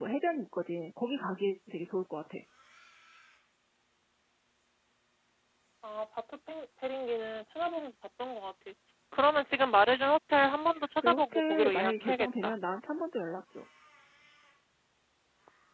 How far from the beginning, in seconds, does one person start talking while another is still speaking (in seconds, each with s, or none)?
11.0 s